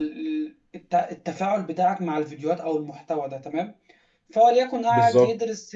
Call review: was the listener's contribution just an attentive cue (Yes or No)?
Yes